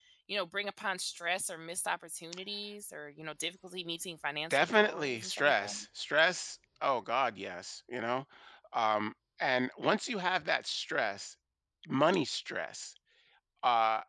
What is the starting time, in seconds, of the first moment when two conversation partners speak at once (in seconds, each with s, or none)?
4.5 s